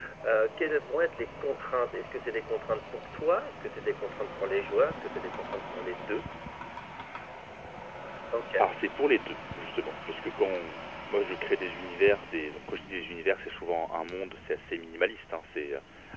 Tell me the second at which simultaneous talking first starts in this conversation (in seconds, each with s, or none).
none